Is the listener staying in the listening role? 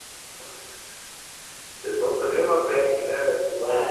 No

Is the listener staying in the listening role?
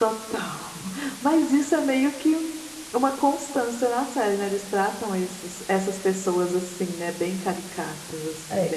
No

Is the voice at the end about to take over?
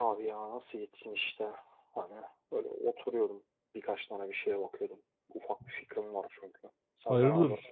Yes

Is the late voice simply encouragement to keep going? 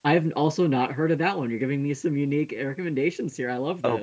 No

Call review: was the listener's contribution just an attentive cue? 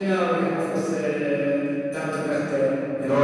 No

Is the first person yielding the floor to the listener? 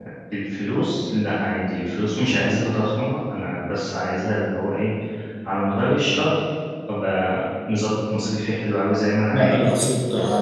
Yes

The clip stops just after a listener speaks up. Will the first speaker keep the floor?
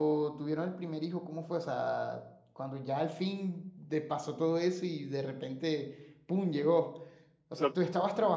Yes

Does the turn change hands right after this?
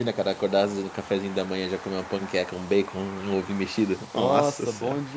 Yes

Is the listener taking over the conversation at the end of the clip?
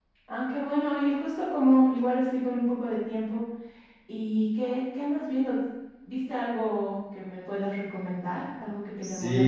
Yes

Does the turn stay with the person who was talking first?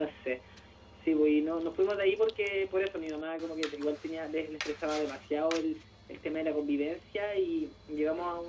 Yes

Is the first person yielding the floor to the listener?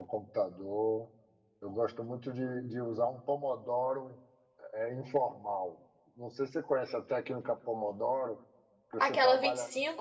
Yes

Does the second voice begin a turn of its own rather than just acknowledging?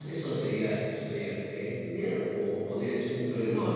No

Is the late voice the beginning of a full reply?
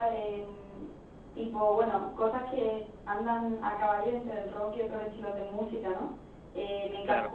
No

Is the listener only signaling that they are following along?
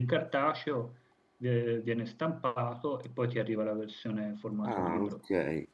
No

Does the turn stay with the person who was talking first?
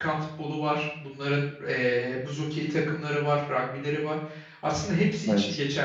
Yes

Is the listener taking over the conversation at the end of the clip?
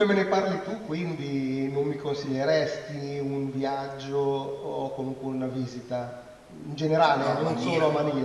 No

